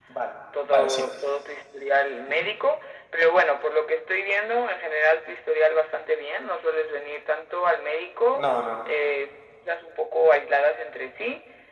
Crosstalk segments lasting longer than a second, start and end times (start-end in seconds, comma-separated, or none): none